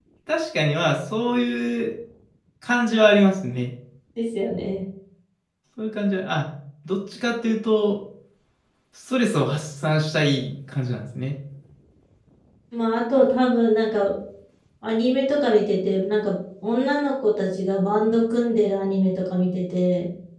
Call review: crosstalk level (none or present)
none